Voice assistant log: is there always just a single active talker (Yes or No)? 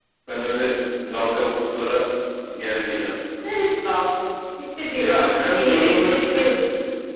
No